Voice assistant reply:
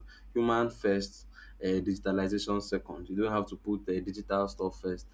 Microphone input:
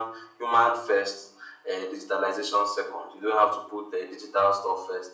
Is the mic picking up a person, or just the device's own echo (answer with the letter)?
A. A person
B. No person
B